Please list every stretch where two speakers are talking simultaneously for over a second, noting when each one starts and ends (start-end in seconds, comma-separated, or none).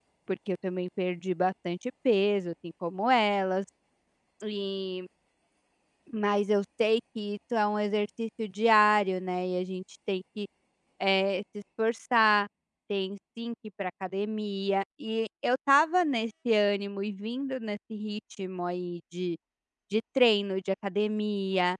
none